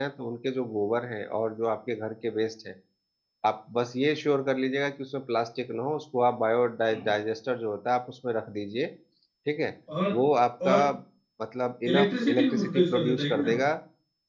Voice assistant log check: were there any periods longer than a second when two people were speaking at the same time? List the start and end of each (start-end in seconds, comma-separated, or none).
11.9-13.5